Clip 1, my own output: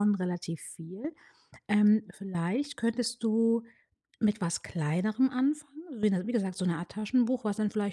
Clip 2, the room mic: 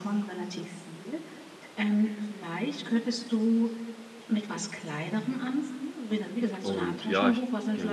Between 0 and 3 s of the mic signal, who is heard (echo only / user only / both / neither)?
echo only